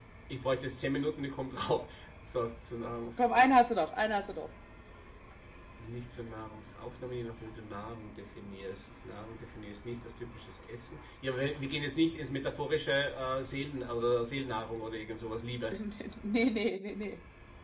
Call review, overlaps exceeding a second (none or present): none